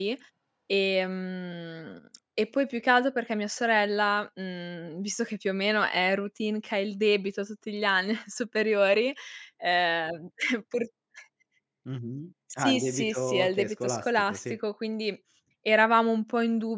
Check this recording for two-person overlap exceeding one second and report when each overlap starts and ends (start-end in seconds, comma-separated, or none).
12.5-14.6